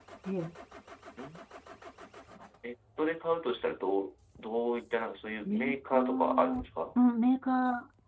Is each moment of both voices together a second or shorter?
No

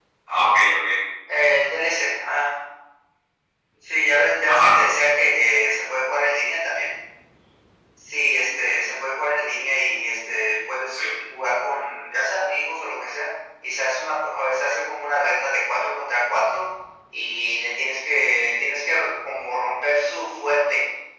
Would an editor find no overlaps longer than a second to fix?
Yes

